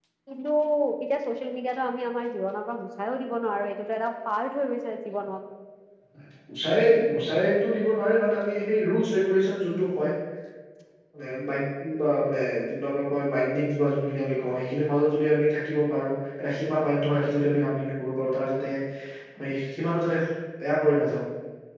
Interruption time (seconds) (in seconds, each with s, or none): none